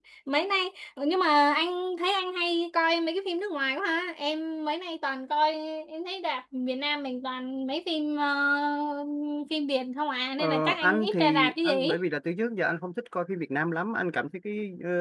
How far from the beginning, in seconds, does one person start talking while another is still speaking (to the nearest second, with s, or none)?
10 s